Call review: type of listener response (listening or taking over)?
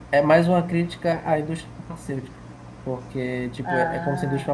listening